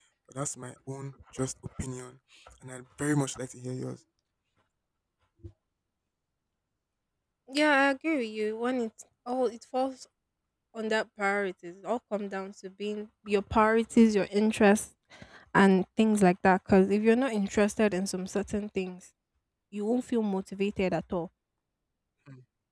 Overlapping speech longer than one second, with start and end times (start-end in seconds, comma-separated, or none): none